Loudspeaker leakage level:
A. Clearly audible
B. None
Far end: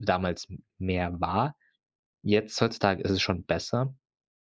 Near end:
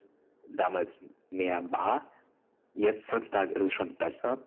A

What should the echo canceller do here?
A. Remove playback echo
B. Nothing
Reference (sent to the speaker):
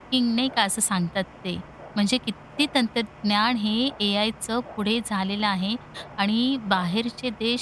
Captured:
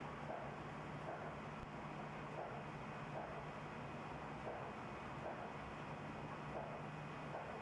B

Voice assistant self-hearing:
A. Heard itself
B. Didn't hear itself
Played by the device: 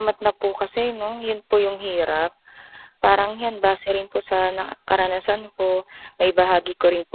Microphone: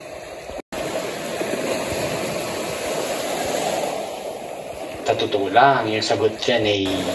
B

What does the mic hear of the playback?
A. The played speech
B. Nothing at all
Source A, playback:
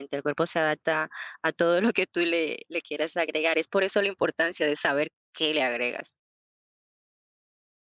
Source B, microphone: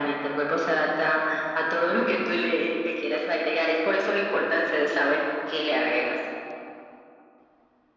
A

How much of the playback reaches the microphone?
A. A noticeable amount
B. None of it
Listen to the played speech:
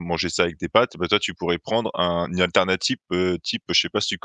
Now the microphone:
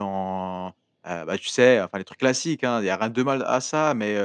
B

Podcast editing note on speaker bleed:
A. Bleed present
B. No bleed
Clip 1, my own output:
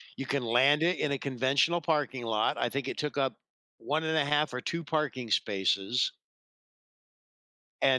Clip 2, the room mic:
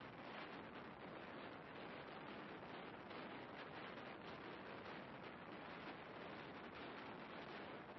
B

